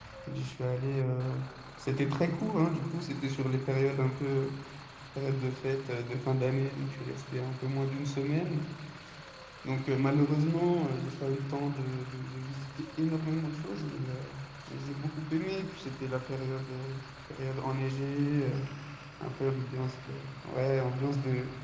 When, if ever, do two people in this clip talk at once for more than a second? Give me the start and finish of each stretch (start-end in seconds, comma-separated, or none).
none